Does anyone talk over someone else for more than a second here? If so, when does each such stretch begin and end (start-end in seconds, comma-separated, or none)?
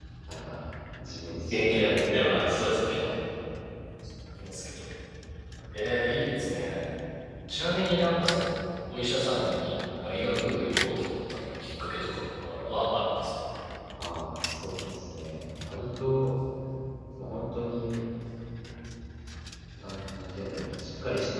1.4-2.8